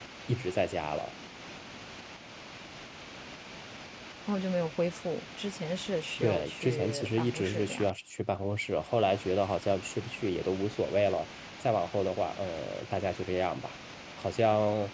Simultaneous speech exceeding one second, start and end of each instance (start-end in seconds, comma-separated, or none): 6.2-7.9